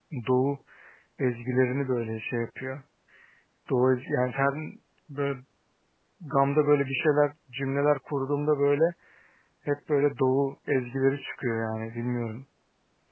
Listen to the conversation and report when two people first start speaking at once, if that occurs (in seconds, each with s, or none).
none